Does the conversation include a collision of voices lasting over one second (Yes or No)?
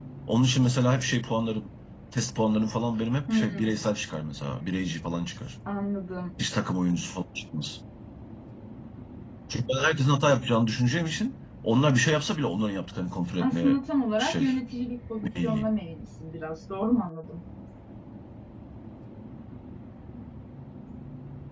No